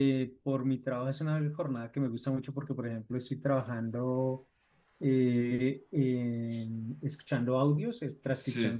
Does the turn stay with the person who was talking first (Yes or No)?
Yes